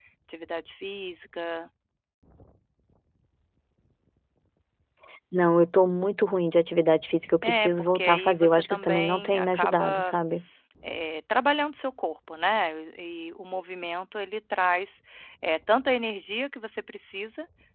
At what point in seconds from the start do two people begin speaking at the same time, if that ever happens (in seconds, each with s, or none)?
7.4 s